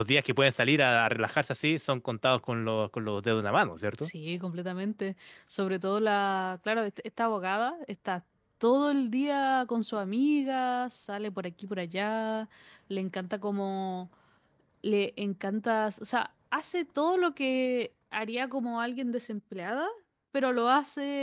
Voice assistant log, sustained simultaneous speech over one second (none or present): none